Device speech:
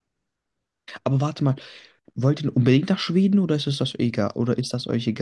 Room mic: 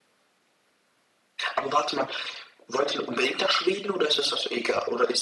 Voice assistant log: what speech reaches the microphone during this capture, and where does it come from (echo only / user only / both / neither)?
echo only